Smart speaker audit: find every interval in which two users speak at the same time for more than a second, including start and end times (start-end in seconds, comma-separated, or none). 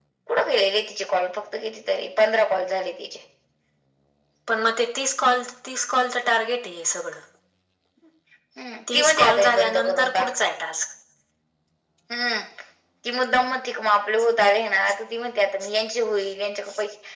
8.9-10.3